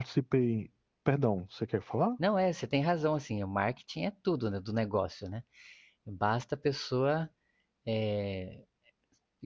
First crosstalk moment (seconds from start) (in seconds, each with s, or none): none